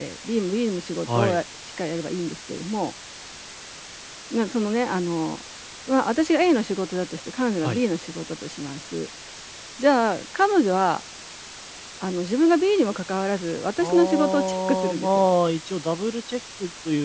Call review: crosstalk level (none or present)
present